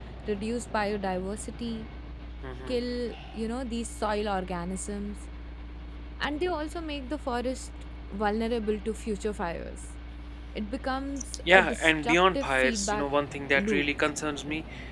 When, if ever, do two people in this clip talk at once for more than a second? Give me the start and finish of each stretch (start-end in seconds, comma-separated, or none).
11.5-13.1